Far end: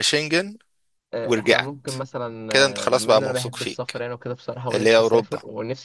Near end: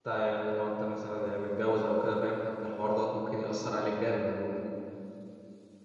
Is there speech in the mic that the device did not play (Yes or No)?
Yes